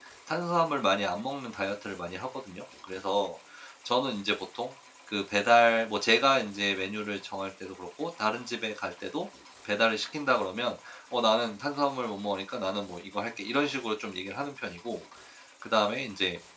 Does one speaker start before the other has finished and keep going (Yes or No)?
No